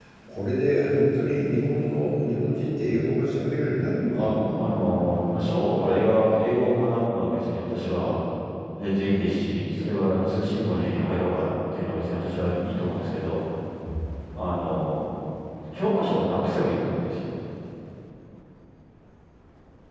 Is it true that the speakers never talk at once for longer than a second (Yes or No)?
Yes